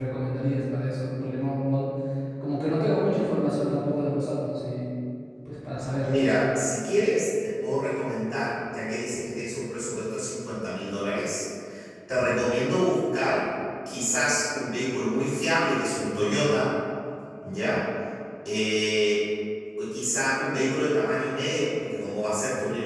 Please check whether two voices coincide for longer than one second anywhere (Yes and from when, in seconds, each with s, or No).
No